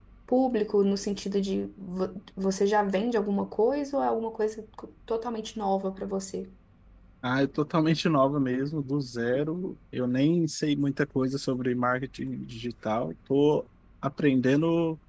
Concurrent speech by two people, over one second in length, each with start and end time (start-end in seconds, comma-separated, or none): none